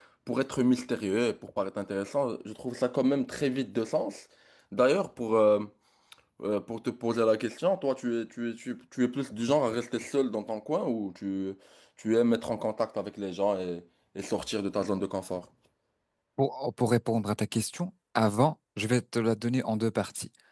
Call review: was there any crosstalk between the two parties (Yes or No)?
No